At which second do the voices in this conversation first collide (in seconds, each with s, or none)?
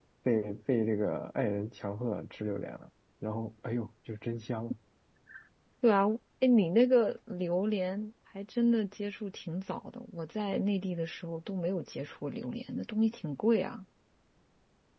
none